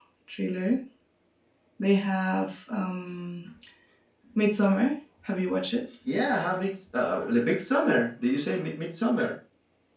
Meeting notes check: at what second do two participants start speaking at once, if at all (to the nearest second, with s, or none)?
none